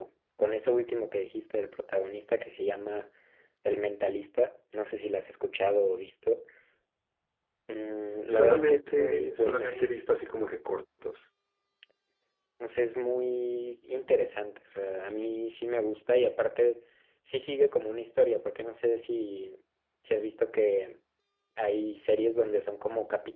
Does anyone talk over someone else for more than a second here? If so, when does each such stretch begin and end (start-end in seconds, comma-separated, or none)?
8.3-9.9